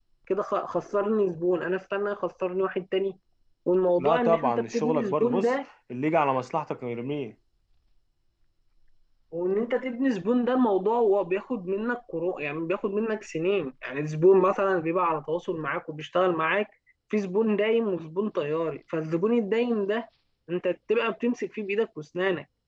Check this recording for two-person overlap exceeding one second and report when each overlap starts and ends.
4.0-5.5

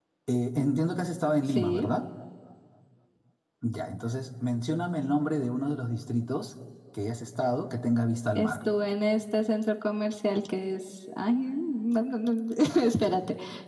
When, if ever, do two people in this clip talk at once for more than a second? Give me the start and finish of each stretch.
none

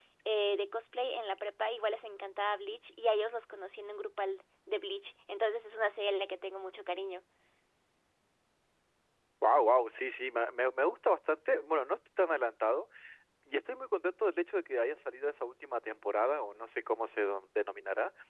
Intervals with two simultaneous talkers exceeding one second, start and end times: none

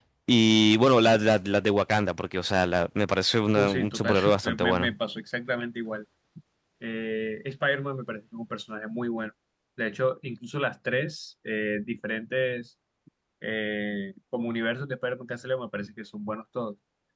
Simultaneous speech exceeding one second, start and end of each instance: 3.5-4.9

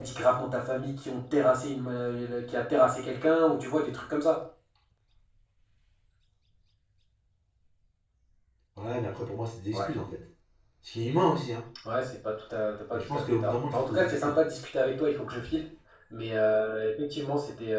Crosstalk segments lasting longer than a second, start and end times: 12.9-14.4

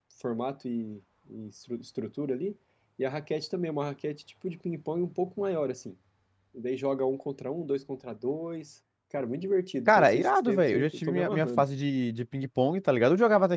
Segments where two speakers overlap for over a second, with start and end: 9.9-11.7

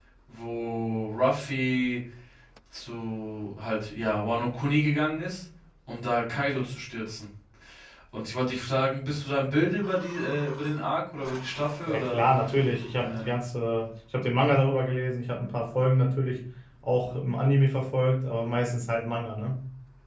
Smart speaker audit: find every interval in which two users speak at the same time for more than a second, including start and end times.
none

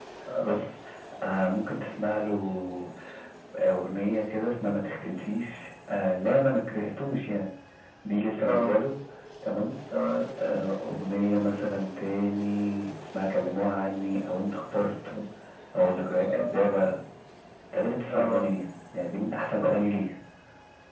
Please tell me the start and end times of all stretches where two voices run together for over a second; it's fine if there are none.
none

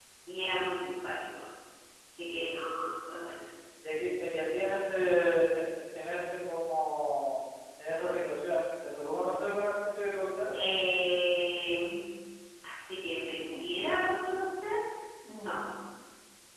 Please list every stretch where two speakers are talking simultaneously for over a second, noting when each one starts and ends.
none

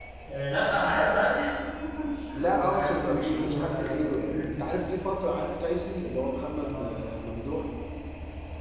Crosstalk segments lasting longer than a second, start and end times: 2.5-4.8

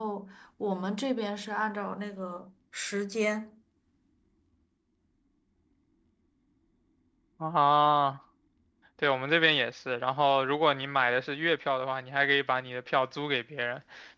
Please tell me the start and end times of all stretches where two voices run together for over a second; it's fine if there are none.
none

